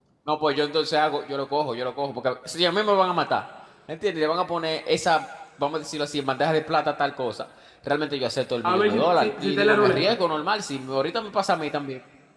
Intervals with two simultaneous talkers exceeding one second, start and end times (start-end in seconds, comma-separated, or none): 8.6-10.1